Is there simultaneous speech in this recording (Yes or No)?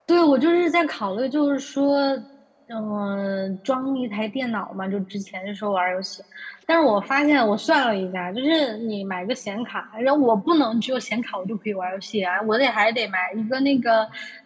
No